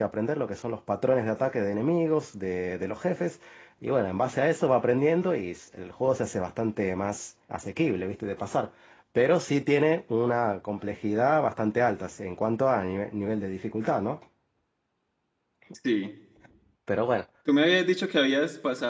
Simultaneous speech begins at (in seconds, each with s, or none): none